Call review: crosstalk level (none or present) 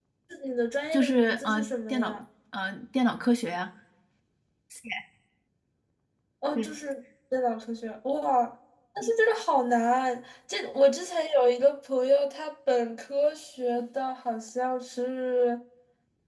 present